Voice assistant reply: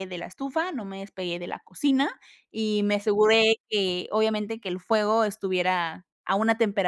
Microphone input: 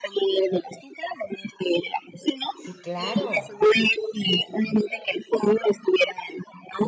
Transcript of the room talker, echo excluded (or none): Sí, claro.